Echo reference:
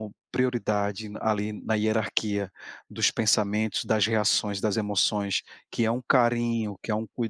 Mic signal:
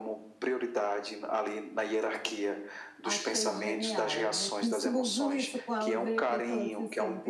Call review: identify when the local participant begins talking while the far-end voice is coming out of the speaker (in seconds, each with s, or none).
3.0 s